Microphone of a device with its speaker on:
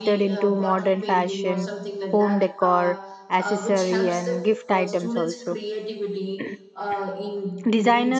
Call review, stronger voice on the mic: user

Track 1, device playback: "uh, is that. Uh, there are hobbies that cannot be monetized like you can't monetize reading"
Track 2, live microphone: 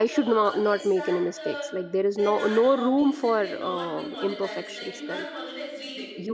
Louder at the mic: user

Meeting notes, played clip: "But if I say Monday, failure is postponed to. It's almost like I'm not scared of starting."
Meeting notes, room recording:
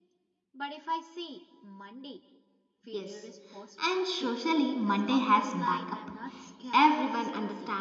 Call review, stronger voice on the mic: user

